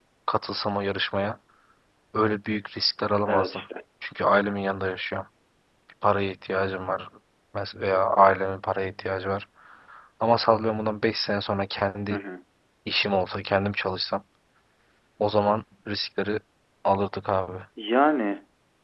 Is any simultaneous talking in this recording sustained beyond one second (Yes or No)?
No